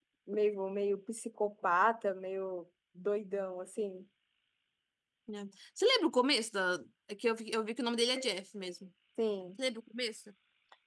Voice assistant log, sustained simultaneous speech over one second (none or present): none